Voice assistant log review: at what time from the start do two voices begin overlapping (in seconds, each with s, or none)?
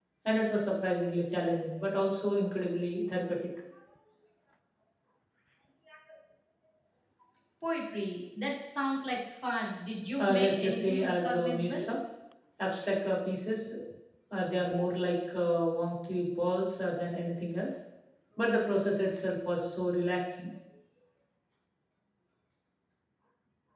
10.2 s